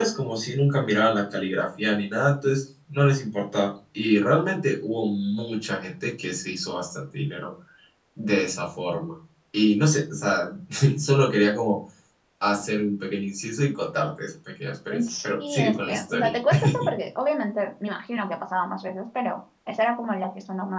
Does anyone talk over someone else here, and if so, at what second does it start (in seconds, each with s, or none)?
14.9 s